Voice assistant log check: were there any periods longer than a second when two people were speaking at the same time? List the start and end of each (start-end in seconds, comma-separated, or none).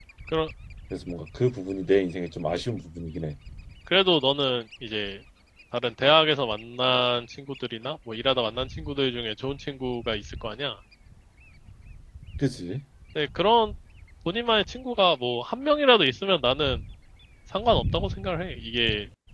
none